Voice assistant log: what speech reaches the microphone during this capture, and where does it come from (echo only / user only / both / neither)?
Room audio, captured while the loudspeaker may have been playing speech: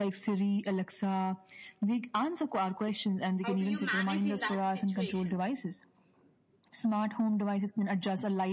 both